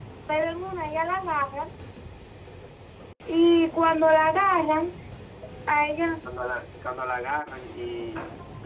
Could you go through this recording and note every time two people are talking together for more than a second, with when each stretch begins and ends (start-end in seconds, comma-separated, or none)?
none